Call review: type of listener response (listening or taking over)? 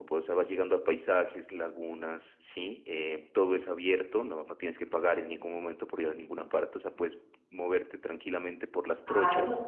taking over